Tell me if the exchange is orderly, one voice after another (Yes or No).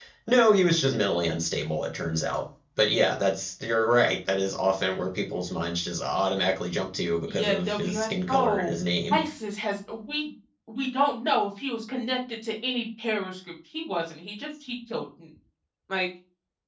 No